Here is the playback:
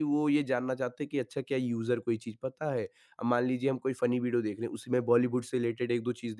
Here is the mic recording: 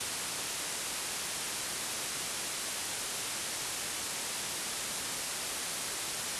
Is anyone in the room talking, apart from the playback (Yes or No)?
No